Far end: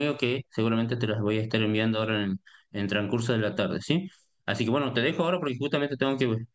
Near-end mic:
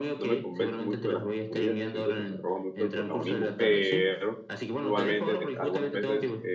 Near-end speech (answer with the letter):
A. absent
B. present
B